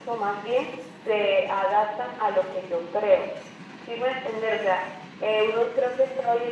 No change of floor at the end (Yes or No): Yes